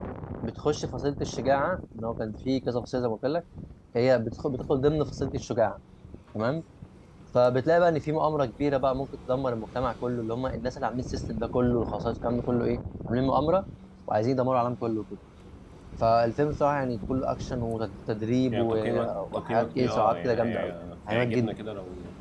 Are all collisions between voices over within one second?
No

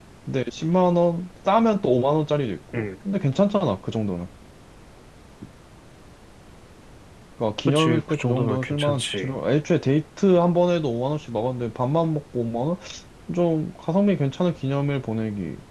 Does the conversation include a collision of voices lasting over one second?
Yes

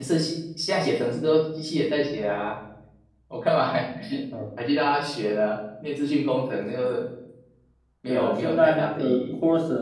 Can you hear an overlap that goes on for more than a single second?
Yes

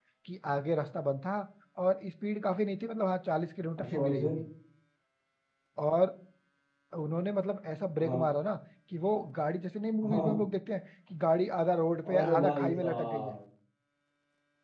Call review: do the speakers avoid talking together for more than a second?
No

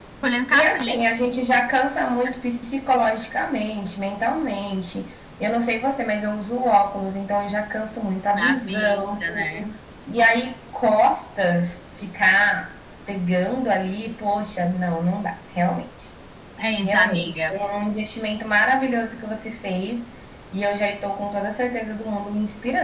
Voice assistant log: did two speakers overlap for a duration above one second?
Yes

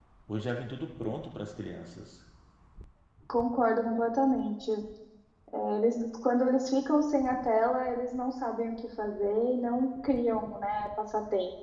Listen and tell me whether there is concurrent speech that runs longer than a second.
No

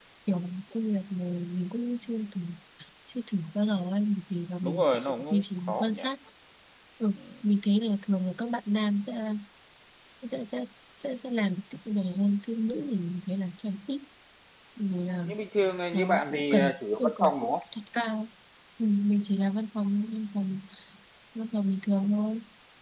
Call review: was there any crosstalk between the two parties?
Yes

